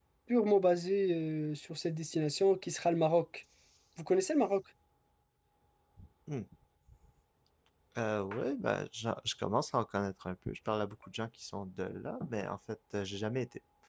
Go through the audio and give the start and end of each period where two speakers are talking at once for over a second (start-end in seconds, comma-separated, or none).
none